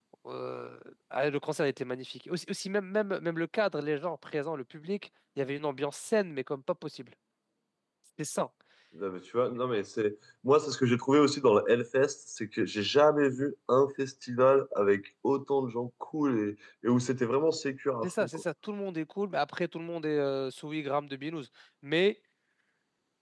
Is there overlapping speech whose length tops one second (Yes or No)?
No